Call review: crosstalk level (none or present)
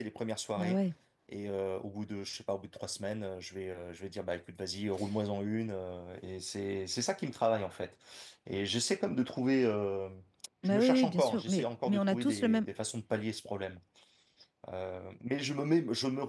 present